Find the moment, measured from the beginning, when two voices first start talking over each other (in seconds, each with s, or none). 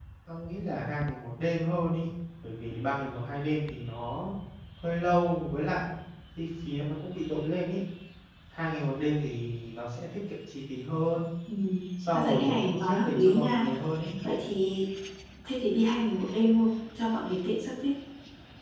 12.1 s